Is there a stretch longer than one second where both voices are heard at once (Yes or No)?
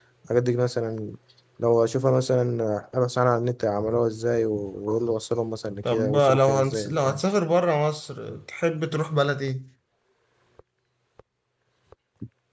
Yes